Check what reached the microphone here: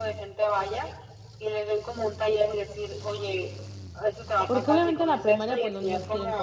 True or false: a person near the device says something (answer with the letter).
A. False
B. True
B